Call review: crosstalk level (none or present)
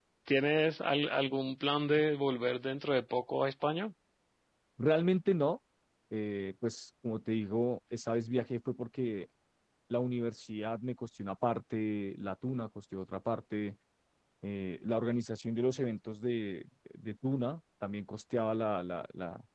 none